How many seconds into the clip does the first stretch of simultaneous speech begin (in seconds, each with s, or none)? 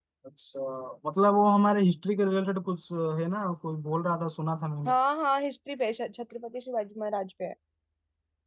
none